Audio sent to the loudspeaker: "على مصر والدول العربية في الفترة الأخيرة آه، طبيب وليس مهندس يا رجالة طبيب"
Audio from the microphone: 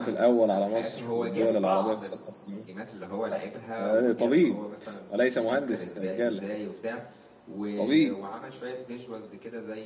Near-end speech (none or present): present